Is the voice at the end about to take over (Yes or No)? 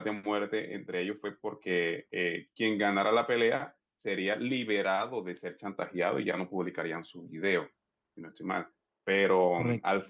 No